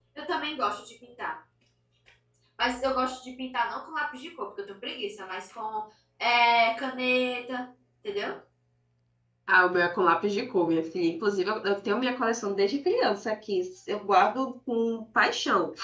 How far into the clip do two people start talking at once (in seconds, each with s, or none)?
none